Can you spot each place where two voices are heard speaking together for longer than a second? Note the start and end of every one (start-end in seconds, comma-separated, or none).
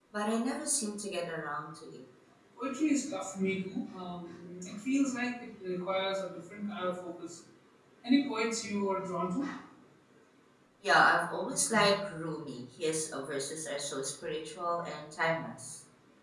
none